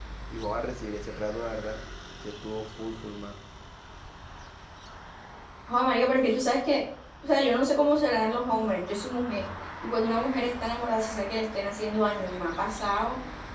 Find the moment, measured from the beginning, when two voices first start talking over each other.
none

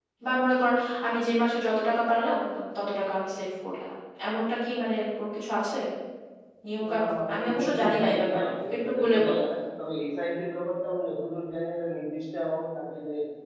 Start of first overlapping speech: 6.9 s

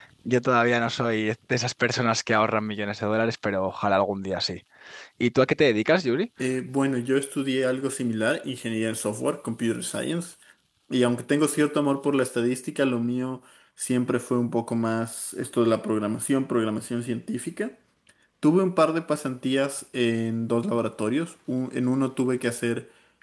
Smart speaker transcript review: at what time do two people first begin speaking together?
none

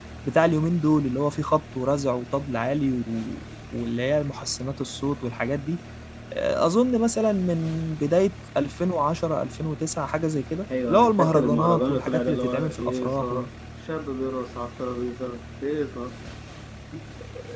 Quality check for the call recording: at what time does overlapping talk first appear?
10.7 s

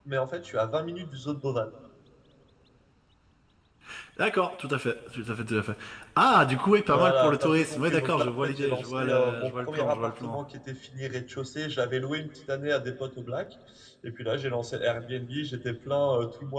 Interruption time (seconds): 6.9 s

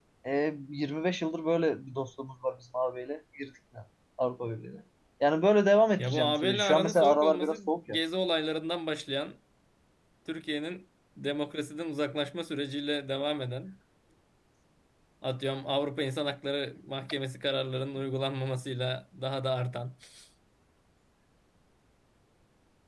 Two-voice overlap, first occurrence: 6.0 s

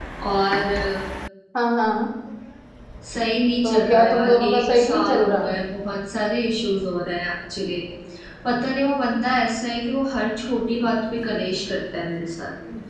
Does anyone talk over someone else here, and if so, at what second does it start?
3.6 s

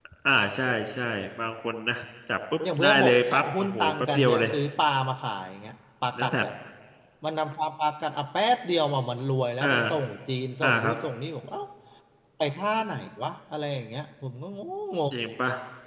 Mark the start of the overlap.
2.8 s

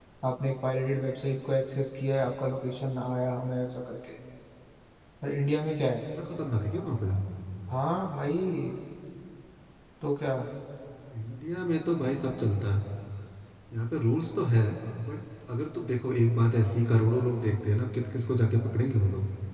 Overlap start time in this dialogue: none

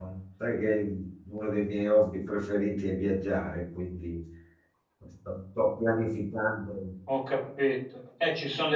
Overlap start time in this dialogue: none

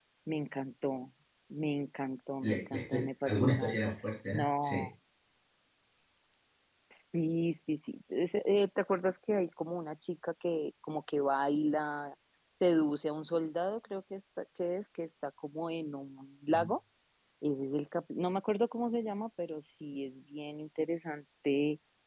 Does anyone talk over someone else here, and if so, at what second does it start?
2.4 s

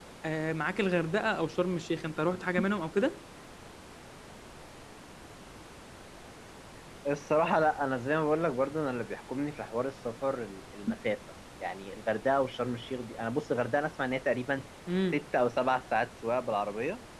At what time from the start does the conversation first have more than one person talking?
none

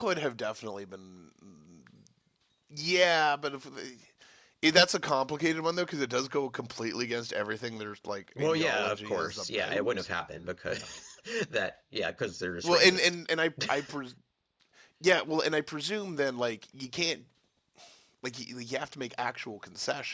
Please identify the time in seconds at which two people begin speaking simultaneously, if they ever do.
8.4 s

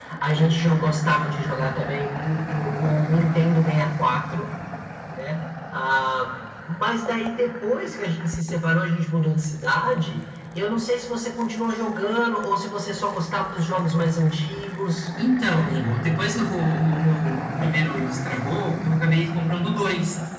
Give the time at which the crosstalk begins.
none

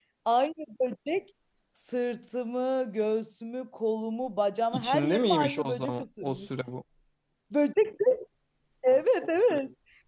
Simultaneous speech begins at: 4.7 s

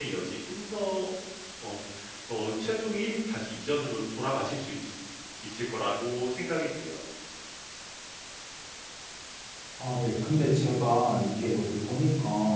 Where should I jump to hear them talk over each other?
none

